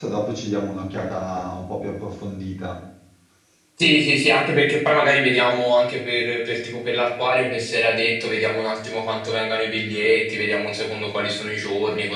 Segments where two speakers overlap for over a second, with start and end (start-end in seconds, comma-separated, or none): none